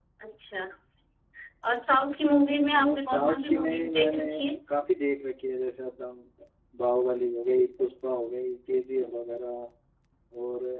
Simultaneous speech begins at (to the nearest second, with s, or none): 3 s